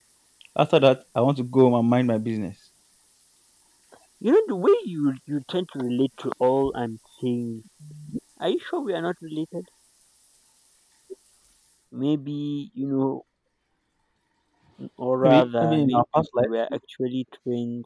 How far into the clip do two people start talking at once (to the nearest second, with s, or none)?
15 s